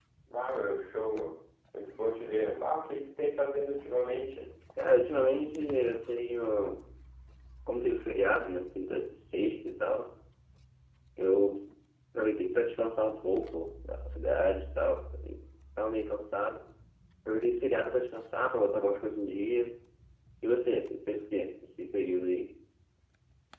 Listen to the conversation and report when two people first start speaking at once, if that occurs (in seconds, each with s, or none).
none